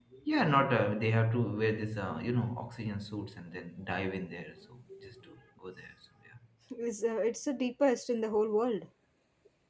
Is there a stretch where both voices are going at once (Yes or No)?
No